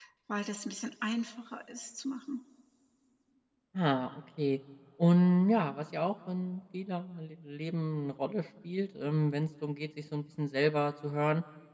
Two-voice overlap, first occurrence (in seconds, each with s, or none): none